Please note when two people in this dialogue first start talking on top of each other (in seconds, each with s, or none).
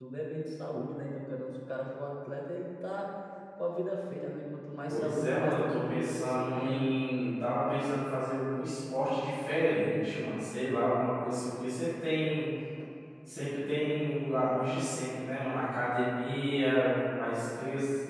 4.9 s